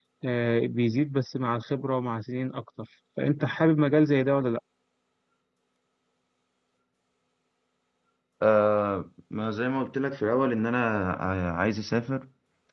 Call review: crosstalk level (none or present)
none